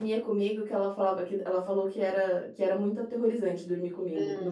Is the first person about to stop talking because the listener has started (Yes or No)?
Yes